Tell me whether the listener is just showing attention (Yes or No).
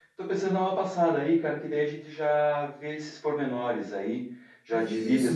No